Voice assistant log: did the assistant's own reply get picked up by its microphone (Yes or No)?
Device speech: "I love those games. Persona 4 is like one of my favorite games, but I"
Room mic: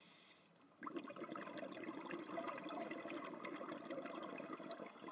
No